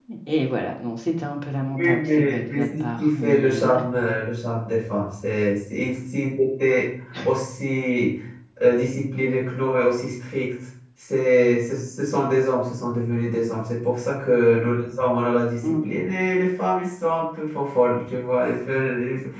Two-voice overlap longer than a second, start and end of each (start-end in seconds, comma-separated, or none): 1.8-3.7